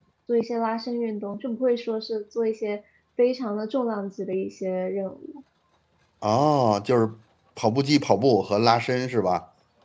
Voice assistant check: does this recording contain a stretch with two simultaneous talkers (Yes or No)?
No